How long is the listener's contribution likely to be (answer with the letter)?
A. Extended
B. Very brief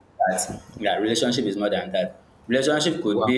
B